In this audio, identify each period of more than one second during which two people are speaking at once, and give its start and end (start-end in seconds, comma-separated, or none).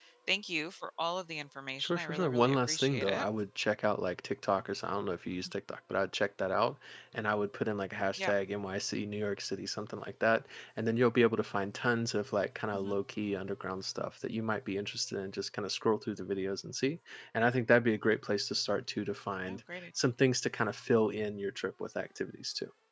1.8-3.3